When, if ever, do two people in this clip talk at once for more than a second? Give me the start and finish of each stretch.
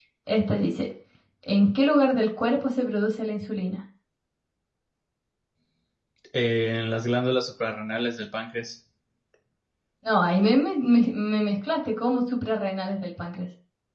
none

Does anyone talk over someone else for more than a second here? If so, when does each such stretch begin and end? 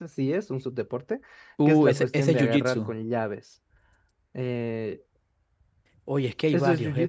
1.7-2.9

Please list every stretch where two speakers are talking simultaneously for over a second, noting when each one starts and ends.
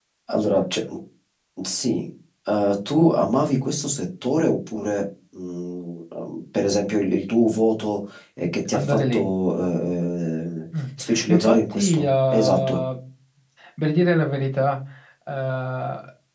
11.3-12.8

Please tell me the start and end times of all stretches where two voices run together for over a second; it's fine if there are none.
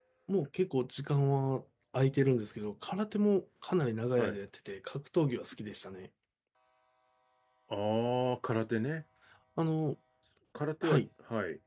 none

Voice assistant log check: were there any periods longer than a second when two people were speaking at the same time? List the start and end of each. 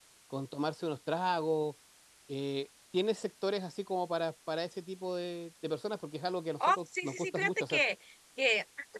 6.6-7.8

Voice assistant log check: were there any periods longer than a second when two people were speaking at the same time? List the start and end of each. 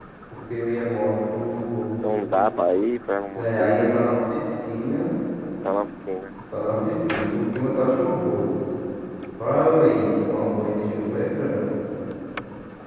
3.3-4.6

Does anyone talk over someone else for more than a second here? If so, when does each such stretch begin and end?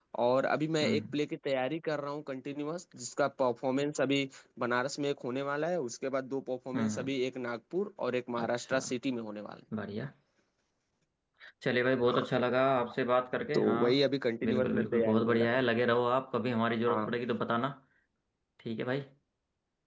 14.4-15.6

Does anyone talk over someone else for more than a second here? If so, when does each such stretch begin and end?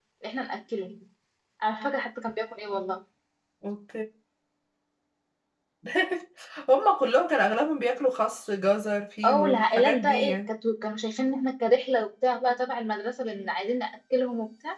9.2-10.5

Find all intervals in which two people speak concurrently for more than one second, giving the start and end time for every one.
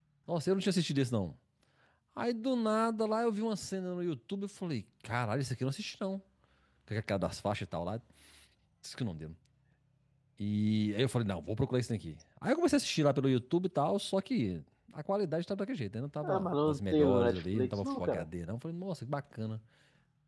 16.2-18.3

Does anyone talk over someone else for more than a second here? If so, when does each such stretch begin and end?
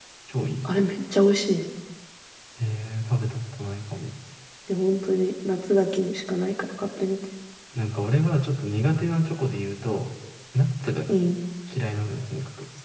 none

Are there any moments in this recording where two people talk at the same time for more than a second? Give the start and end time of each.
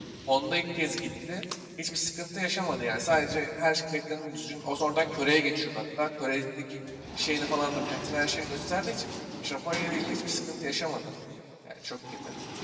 none

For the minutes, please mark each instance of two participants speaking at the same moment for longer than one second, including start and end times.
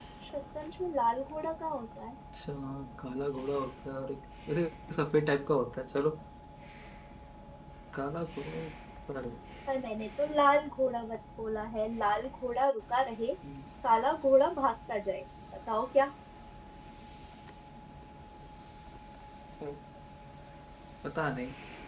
none

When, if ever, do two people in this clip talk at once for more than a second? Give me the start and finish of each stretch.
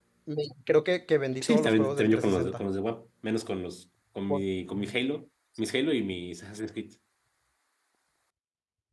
1.4-2.6

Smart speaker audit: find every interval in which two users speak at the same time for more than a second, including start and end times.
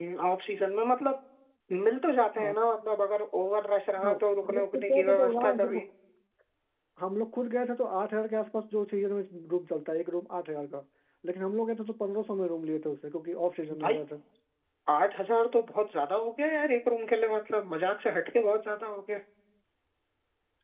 4.0-5.8

